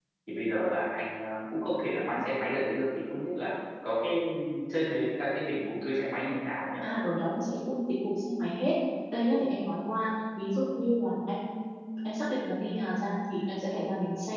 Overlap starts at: none

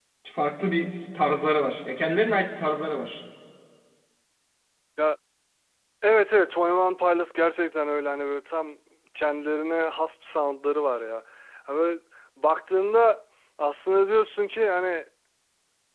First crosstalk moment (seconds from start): none

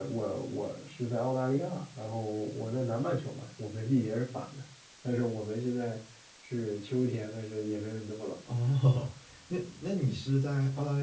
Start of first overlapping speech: none

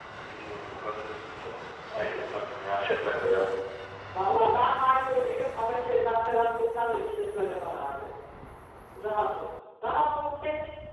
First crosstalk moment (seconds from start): none

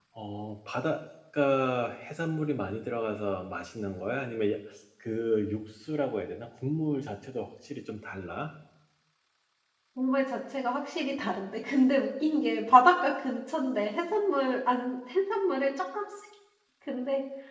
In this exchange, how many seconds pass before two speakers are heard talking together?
none

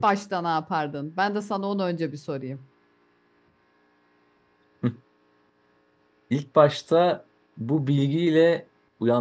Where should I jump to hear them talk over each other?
none

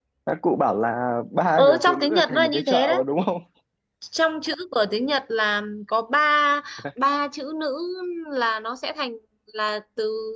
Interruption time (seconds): 1.6 s

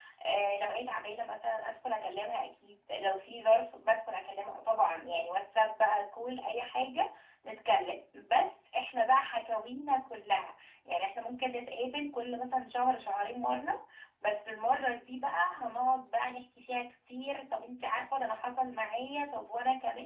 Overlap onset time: none

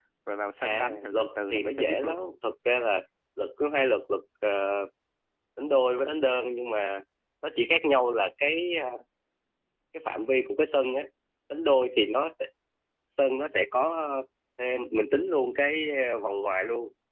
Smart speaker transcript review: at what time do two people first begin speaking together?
0.6 s

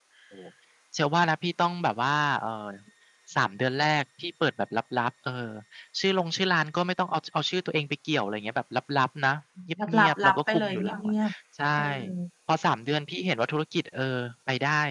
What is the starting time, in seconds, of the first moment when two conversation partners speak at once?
9.9 s

